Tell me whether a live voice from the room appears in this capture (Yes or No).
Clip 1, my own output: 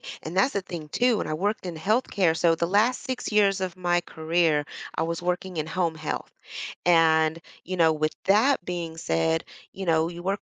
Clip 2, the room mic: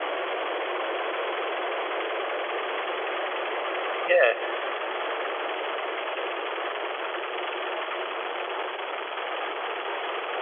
Yes